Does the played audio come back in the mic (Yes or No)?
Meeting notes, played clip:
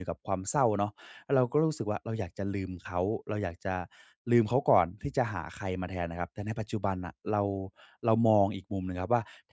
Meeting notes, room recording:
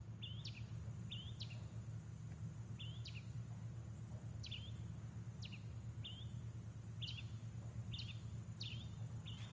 No